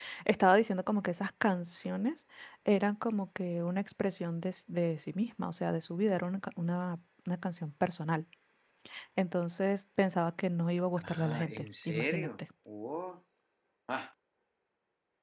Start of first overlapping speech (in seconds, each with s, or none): 11.0 s